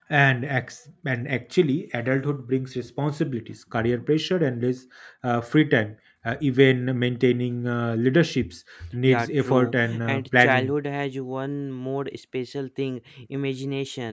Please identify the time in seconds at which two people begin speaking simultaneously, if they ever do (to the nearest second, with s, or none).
9 s